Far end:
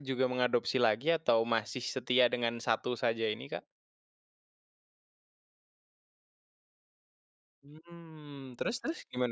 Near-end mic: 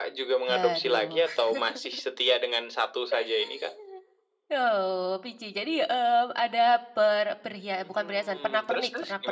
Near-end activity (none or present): present